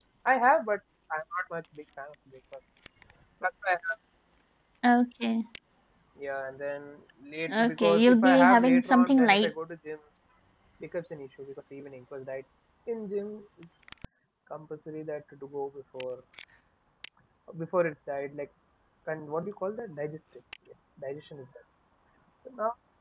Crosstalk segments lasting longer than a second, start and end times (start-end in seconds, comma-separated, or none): 7.5-9.5